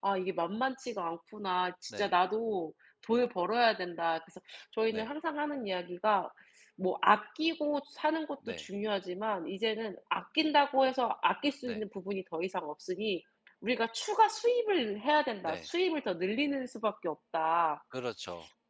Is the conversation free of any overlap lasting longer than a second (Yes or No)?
Yes